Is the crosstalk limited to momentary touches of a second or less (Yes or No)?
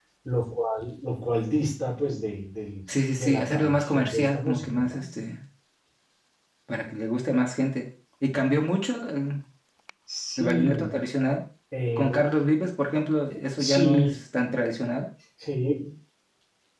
No